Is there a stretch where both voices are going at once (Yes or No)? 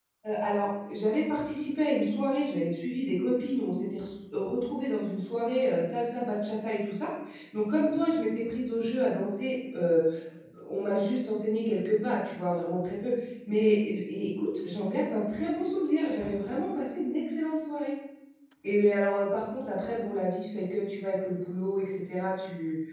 No